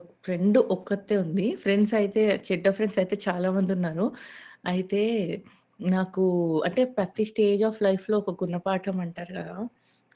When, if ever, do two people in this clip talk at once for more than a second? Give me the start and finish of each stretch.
none

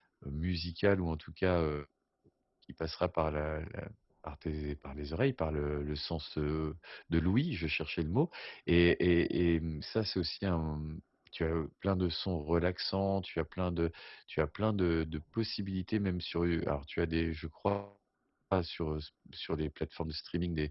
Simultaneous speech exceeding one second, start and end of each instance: none

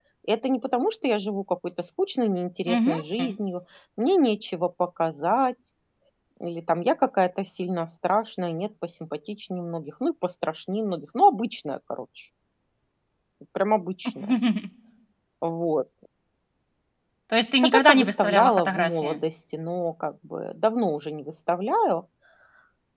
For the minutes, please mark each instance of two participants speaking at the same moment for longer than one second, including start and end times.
17.6-19.2

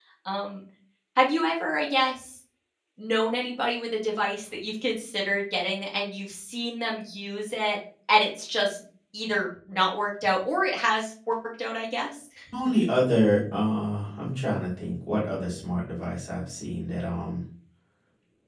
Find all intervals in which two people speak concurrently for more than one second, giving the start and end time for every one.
none

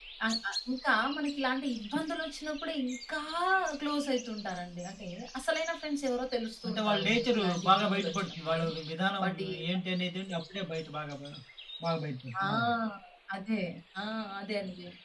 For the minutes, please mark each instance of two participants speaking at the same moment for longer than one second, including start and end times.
6.7-8.6

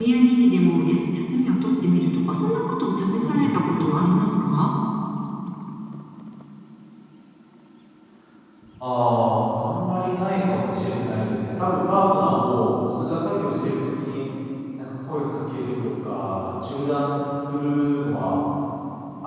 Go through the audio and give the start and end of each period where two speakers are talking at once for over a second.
none

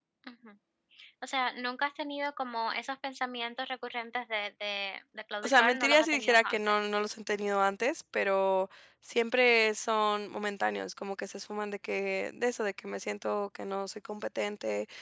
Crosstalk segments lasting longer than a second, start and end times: 5.4-6.7

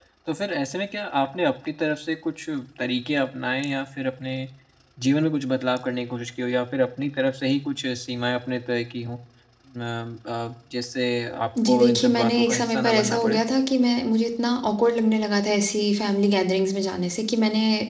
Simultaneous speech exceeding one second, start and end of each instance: 11.7-13.4

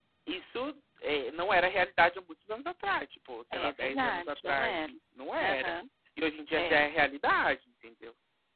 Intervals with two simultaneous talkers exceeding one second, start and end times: 3.5-4.9

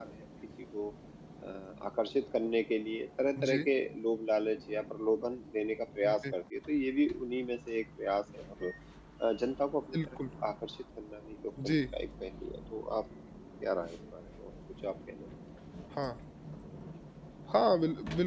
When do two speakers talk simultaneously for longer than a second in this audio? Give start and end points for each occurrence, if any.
none

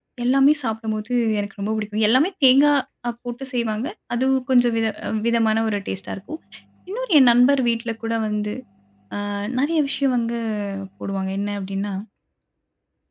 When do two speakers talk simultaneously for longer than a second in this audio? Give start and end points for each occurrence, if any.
none

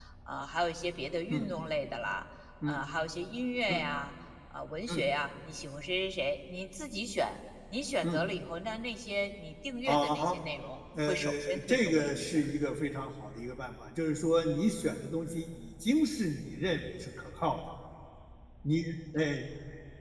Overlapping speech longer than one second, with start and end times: 11.1-12.3

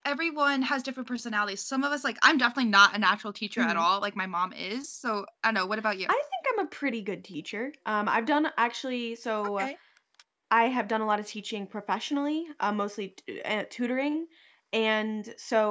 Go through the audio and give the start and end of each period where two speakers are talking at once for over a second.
none

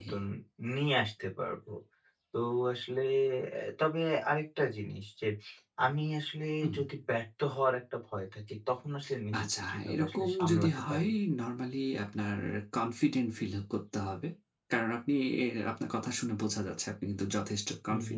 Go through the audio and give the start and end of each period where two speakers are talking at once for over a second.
9.4-11.1

